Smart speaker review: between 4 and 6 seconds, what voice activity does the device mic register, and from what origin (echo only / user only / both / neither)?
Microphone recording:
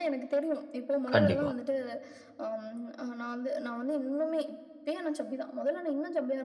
echo only